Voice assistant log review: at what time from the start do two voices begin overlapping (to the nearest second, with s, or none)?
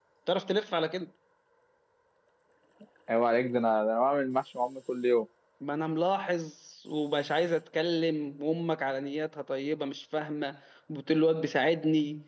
none